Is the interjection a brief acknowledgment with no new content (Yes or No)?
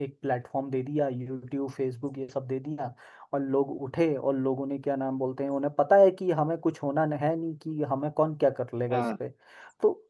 Yes